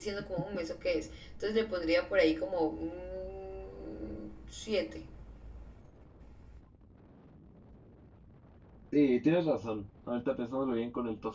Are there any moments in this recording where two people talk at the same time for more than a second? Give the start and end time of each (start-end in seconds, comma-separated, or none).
none